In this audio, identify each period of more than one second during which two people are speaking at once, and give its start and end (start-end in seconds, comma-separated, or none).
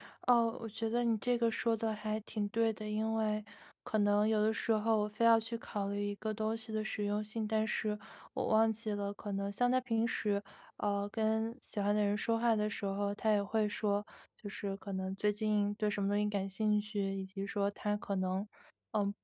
none